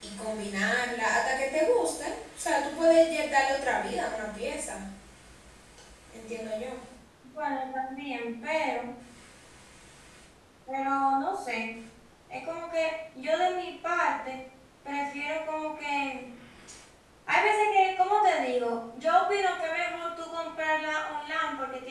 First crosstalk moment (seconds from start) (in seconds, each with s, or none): none